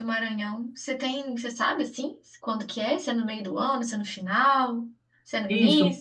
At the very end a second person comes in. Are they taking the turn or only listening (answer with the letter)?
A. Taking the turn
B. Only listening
A